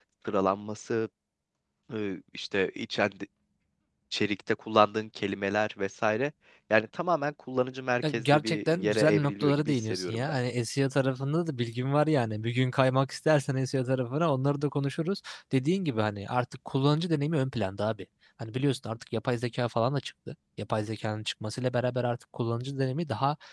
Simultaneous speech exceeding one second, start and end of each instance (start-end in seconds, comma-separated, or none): 8.1-10.4